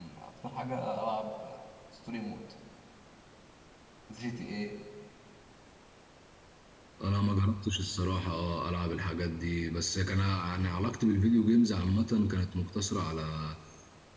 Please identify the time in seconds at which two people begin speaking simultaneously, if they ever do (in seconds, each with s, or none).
none